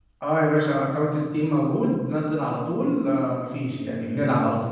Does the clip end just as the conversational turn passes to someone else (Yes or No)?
Yes